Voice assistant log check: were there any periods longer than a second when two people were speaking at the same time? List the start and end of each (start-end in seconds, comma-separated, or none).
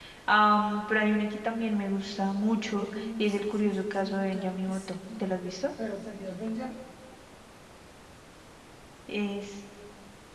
2.7-5.3